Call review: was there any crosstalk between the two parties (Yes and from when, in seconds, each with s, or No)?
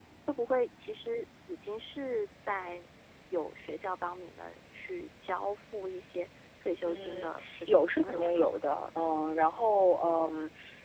Yes, from 6.8 s